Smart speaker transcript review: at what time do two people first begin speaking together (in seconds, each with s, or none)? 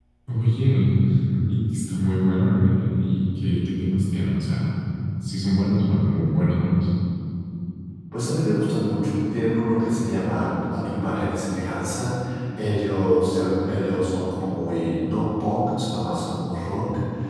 none